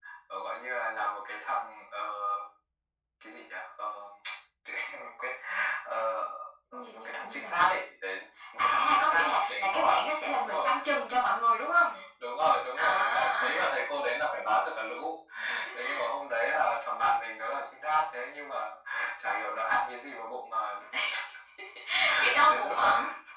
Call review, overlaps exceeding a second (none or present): present